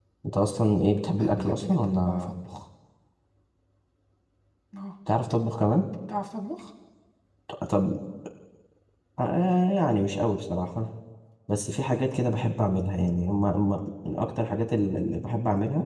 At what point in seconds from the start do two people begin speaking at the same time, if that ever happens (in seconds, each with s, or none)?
1.1 s